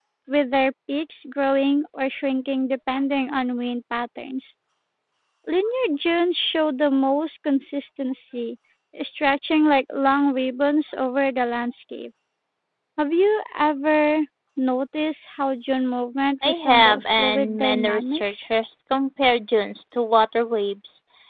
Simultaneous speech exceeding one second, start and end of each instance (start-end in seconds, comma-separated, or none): 16.4-18.5